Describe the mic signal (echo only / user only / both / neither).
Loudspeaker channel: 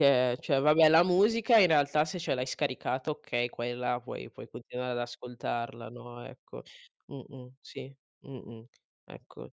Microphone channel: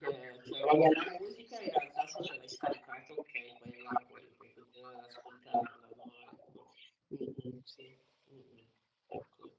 echo only